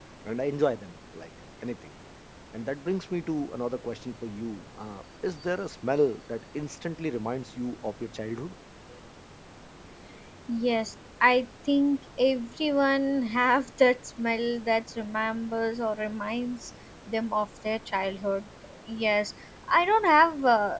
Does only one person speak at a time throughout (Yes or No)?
Yes